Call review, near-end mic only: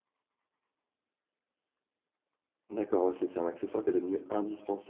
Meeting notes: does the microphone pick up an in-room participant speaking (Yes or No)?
Yes